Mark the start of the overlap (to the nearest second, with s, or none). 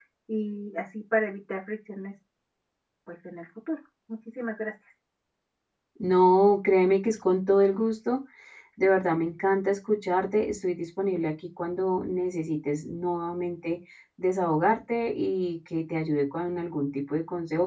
none